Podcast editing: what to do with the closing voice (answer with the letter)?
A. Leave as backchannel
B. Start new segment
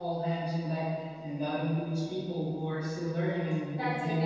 B